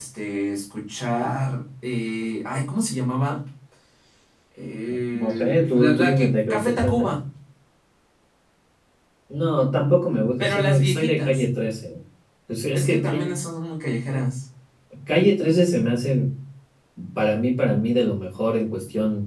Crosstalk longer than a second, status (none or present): present